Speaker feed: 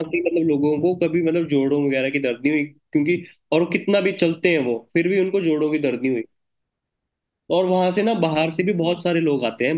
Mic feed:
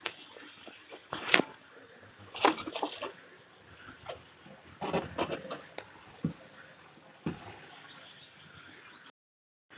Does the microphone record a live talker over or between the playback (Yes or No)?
No